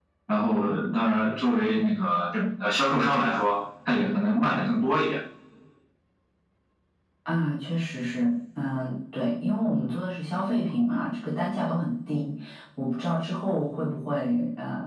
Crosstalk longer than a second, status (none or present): none